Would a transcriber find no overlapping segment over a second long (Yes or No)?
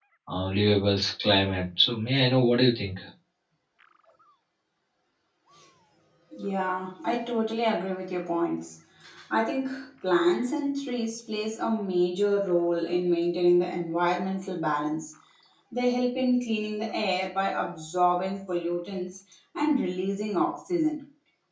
Yes